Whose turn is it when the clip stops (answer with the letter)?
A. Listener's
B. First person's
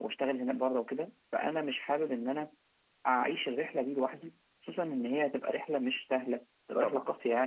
B